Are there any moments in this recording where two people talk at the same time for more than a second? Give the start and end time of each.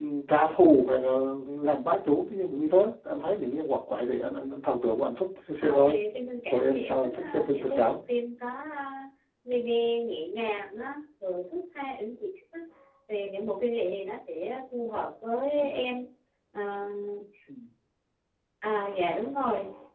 6.5-8.0

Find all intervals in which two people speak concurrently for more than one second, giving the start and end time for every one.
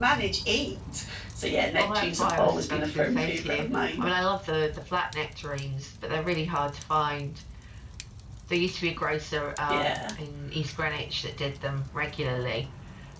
1.8-4.0

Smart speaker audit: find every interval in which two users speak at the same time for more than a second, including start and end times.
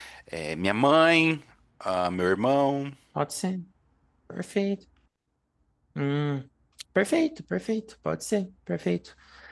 none

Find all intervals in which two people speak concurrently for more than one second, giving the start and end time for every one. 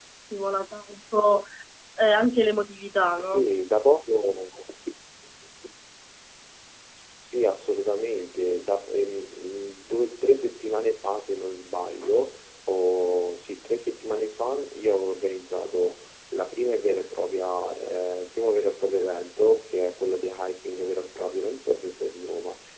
none

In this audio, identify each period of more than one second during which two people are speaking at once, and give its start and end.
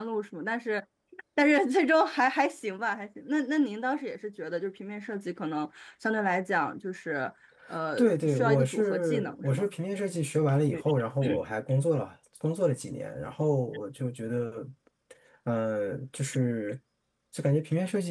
8.0-9.7

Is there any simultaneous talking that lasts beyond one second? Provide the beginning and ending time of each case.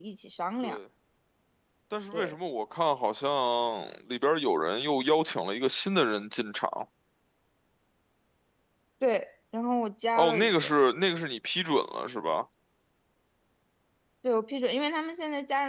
none

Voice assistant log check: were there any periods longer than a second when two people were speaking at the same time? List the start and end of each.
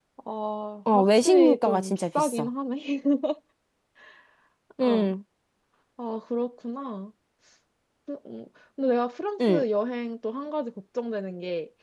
0.9-2.5

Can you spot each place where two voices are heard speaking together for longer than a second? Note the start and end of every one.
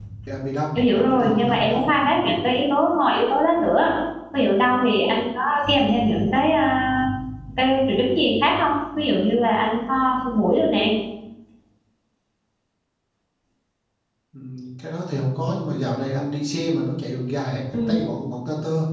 0.8-2.0

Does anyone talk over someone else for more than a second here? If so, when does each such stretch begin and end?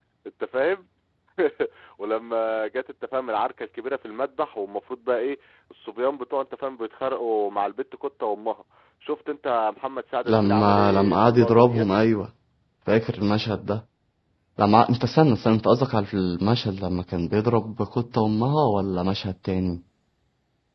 10.3-11.8

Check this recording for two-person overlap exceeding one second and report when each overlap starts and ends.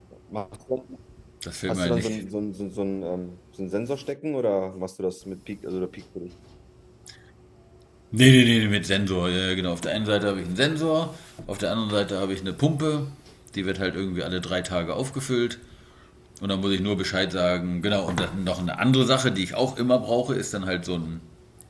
none

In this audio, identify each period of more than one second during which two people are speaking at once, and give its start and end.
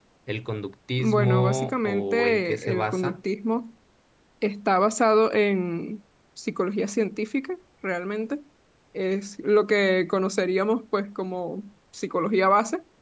1.0-3.2

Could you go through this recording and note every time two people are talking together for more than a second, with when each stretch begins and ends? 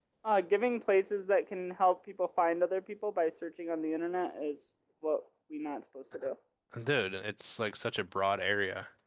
none

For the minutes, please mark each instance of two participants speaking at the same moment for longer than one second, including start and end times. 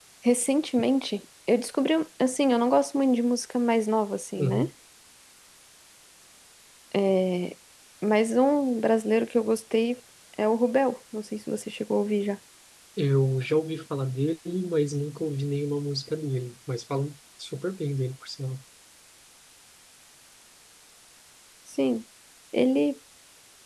none

